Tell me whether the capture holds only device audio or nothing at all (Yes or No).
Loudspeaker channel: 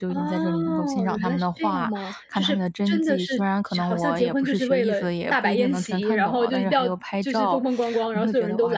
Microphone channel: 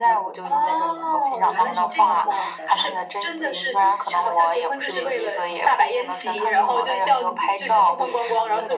No